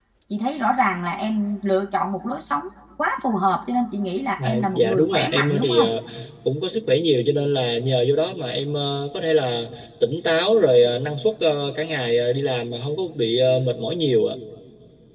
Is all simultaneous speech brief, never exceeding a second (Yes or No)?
No